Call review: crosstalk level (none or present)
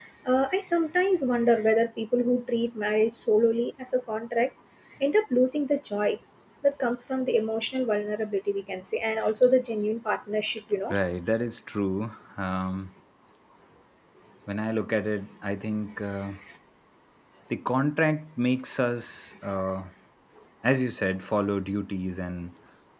none